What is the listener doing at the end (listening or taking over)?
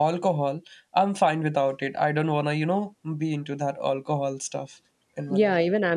taking over